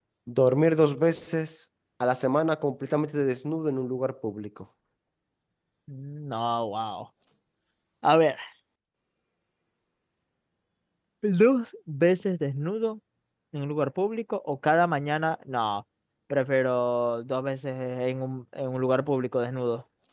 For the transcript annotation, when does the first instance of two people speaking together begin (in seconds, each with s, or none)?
none